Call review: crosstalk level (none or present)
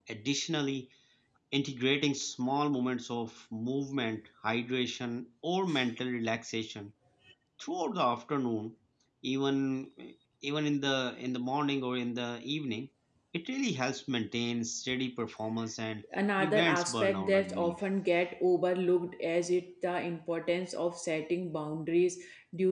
present